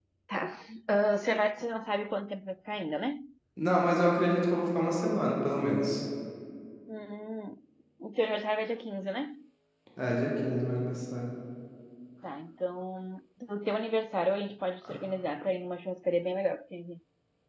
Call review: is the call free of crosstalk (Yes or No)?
Yes